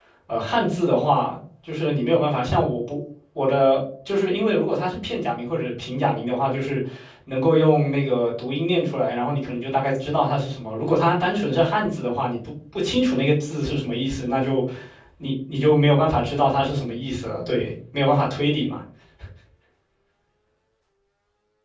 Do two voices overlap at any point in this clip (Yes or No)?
No